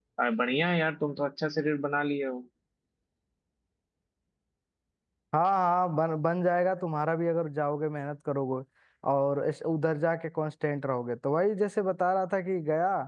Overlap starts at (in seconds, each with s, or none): none